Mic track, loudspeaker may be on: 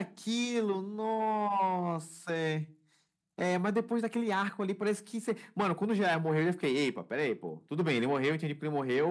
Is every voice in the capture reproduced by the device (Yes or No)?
Yes